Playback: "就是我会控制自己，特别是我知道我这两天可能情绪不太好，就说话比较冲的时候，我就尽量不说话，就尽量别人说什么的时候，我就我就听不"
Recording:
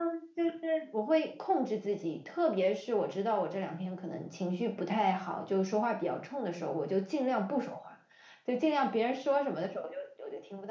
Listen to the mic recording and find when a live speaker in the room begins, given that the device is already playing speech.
none

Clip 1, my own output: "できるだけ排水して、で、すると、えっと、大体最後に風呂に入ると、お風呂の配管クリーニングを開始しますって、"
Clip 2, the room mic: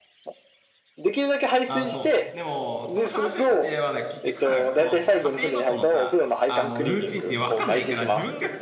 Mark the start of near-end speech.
1.6 s

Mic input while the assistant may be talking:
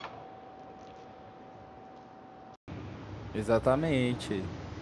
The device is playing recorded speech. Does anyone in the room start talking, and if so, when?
3.3 s

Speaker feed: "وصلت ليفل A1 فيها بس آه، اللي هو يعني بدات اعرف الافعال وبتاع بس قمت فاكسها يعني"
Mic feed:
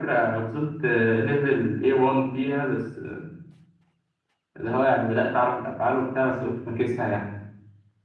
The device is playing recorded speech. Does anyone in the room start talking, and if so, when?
none

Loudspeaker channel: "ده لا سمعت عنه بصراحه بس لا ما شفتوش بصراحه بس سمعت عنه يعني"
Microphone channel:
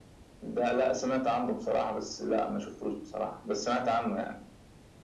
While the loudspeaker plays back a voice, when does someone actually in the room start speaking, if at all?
none

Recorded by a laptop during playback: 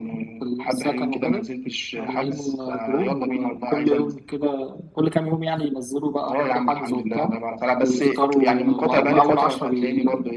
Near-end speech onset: none

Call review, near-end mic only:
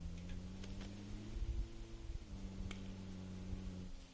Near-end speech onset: none

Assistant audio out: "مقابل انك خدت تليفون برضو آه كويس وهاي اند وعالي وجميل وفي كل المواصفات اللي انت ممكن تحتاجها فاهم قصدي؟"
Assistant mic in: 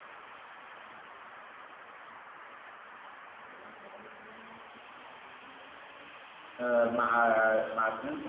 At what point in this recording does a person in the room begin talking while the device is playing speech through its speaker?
6.6 s

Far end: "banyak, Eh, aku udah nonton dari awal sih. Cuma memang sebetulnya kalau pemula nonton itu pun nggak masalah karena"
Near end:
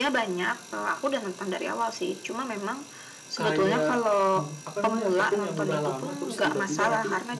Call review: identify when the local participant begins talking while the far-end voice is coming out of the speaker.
3.4 s

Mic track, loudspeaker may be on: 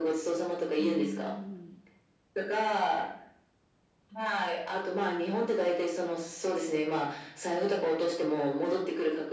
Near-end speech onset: 0.8 s

